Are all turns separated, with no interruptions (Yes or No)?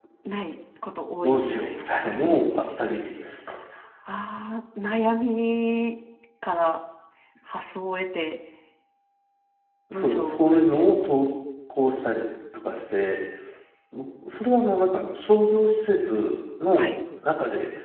No